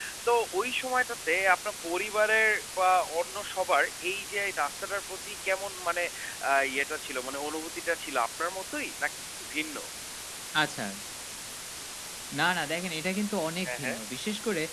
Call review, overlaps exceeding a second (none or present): none